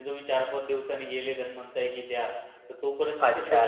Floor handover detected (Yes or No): Yes